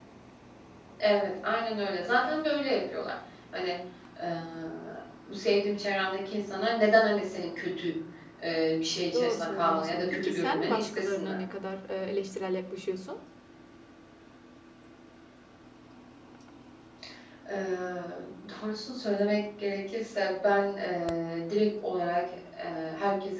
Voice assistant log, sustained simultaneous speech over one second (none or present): present